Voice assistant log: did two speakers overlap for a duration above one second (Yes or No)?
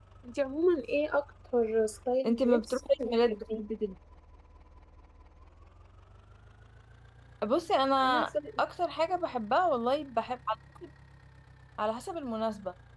Yes